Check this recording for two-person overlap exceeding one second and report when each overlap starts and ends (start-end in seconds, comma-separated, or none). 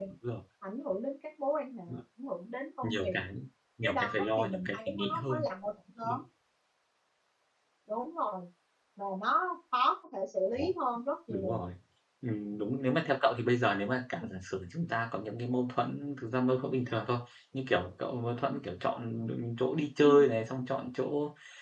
3.8-5.4